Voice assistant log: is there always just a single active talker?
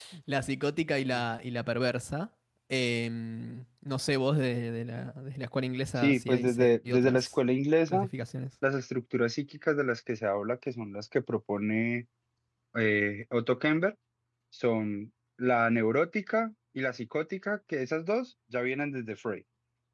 No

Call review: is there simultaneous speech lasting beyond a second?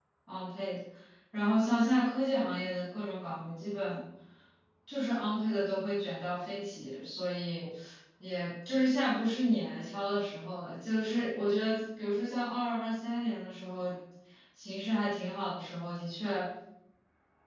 No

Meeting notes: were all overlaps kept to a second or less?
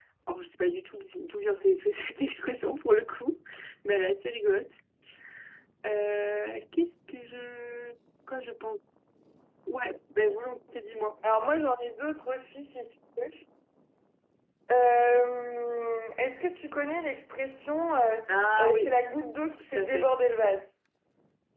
Yes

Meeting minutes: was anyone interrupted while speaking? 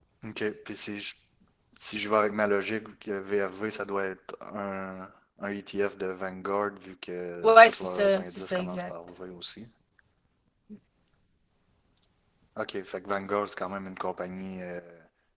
Yes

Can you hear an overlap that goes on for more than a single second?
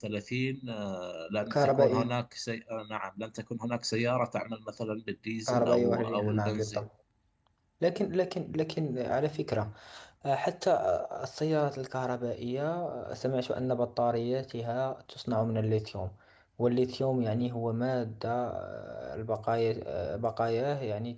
Yes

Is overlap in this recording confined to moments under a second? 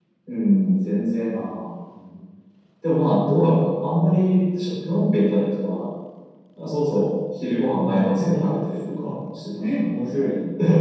No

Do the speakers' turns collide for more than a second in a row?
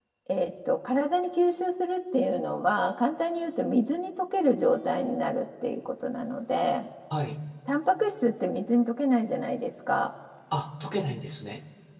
No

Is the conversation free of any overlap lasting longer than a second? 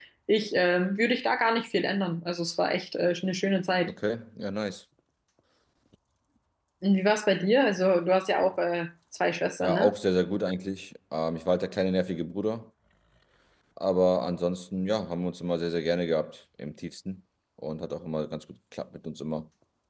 Yes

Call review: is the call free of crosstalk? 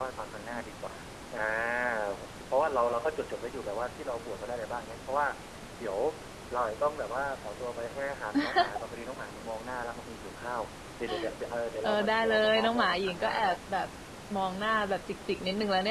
No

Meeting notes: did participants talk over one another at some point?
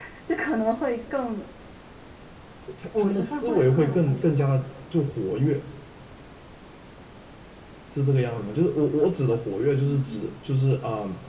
Yes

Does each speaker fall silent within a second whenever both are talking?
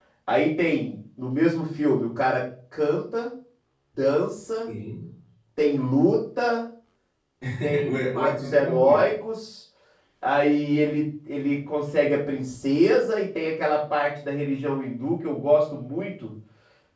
No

